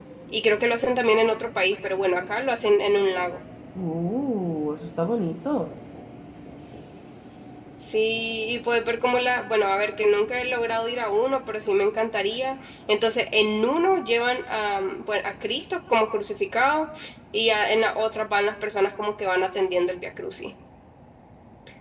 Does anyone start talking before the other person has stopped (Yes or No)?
No